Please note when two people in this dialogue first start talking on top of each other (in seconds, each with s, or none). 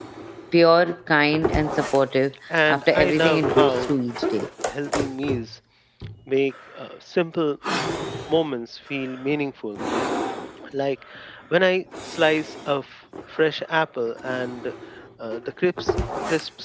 2.5 s